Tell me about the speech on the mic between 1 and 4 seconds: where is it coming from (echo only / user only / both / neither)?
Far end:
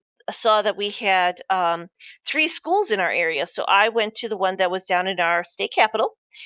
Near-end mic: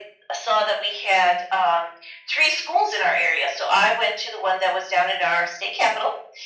echo only